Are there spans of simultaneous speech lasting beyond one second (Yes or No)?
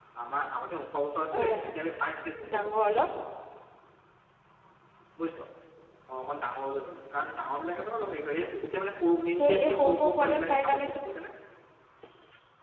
Yes